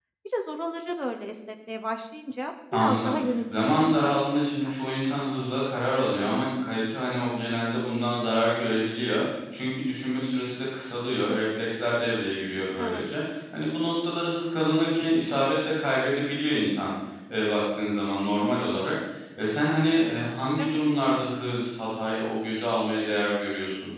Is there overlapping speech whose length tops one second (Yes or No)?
Yes